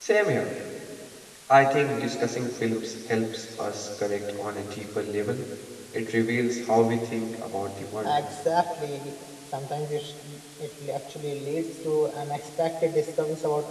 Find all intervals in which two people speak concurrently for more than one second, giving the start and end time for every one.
none

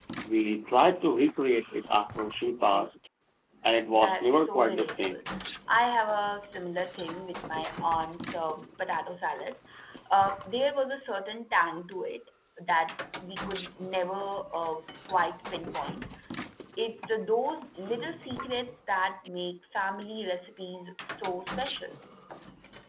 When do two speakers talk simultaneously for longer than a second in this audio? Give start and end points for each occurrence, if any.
3.9-5.2

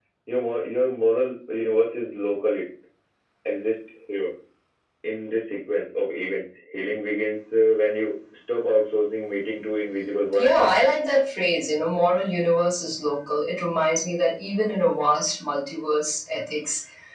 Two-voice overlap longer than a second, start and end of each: none

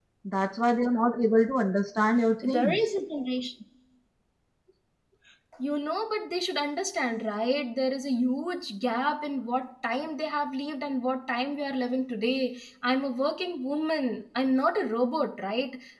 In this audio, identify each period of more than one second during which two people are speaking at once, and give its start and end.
none

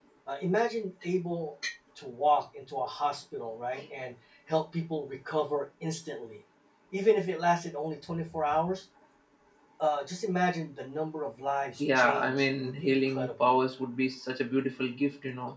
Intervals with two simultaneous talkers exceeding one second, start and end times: 11.8-13.3

